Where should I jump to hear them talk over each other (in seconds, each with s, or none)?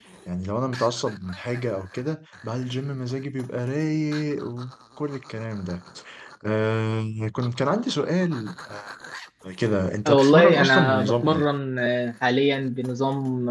10.1 s